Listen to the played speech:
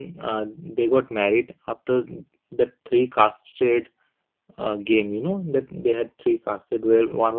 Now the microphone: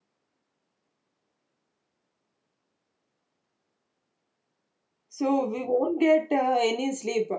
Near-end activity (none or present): present